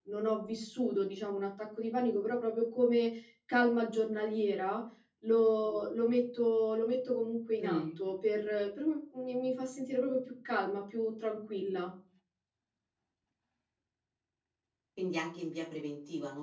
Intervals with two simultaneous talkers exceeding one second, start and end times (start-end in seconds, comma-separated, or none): none